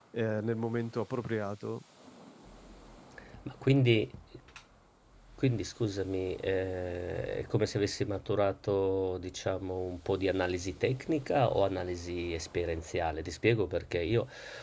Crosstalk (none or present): none